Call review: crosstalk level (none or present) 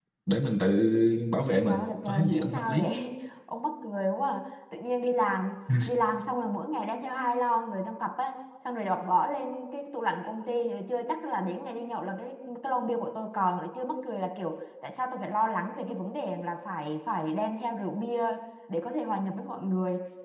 present